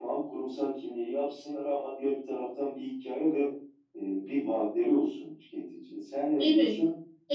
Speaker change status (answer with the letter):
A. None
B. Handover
B